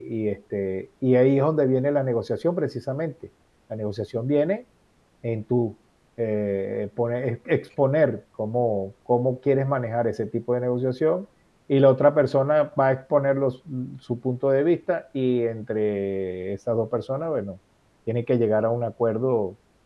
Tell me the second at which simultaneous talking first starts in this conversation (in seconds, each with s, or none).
none